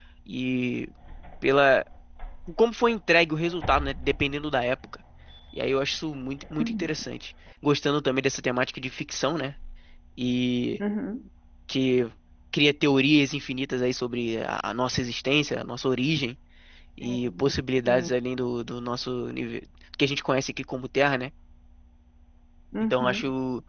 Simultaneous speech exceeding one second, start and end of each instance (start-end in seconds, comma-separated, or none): none